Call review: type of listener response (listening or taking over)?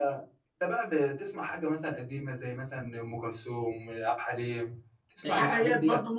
taking over